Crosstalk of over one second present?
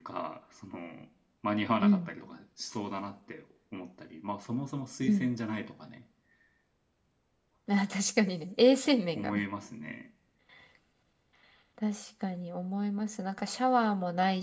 No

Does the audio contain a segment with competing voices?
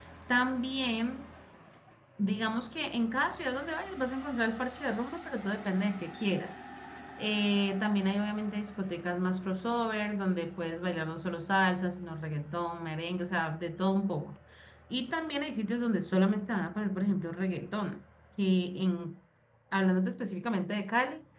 No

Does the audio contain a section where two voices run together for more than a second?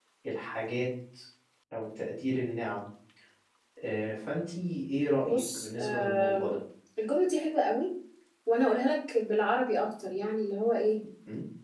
Yes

